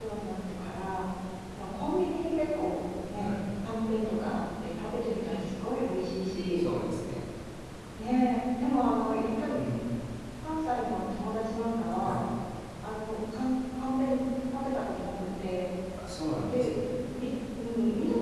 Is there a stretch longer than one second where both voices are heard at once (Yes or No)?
No